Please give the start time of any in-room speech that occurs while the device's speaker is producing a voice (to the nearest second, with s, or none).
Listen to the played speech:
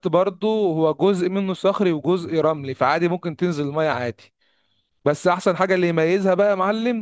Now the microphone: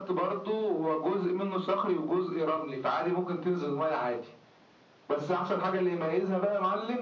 none